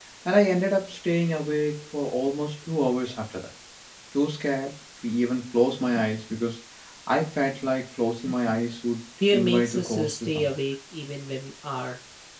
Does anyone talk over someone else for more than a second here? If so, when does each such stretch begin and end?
9.3-10.5

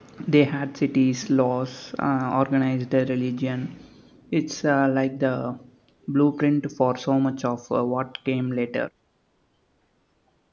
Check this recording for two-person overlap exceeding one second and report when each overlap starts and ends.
none

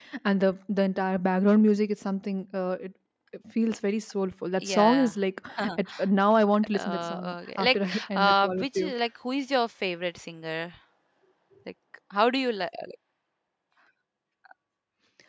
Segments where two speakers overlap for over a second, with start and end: 6.8-8.9

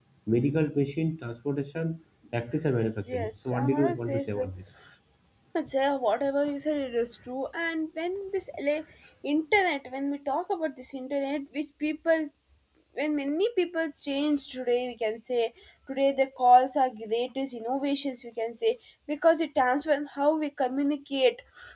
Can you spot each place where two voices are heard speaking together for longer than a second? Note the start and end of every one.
3.1-4.5

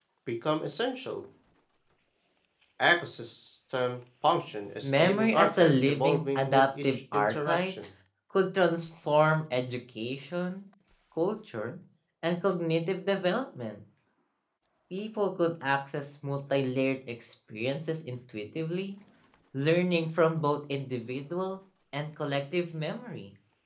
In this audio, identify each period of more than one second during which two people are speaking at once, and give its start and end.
4.8-7.9

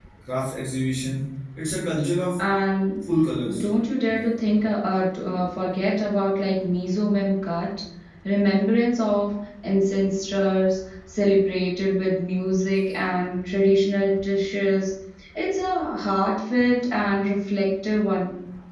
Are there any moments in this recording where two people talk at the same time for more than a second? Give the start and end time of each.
none

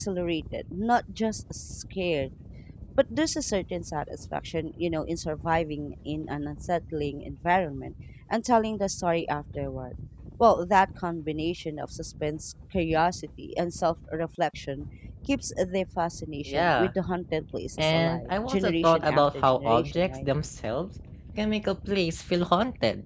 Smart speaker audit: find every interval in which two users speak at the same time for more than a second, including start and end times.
17.8-20.3

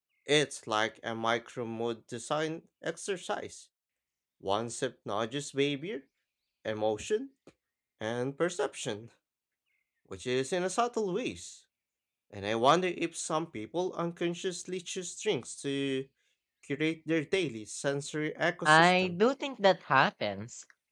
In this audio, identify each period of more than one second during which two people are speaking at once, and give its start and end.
none

